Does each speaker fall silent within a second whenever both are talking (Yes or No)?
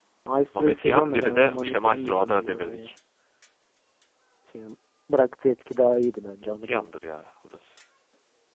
No